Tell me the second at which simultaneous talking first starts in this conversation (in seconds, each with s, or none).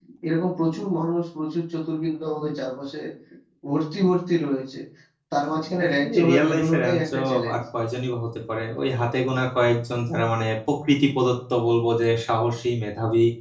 6.0 s